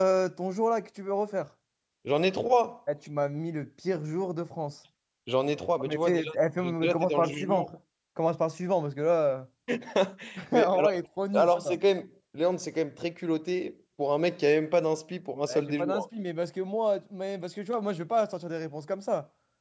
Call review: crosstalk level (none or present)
present